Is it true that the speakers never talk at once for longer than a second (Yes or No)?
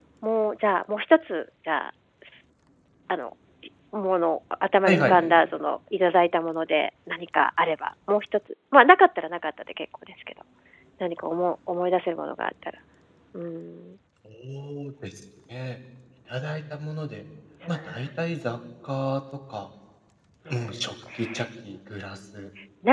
Yes